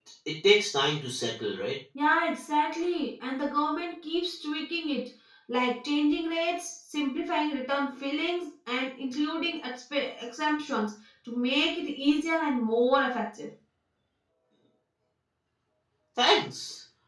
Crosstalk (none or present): none